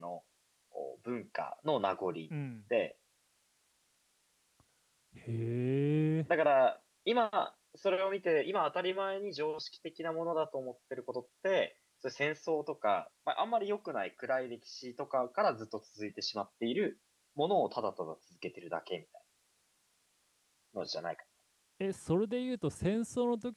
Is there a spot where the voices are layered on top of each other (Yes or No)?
No